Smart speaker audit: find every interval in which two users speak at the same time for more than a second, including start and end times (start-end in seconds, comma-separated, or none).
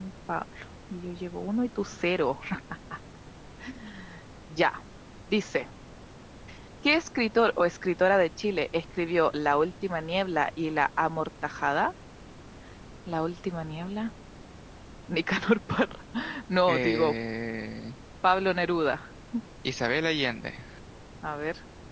none